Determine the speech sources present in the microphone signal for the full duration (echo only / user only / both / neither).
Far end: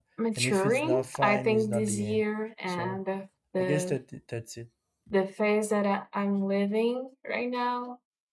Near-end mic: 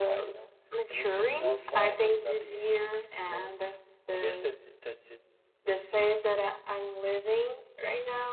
echo only